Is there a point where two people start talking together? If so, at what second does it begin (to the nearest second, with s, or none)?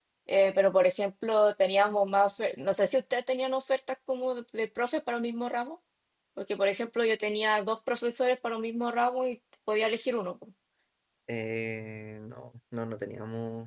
none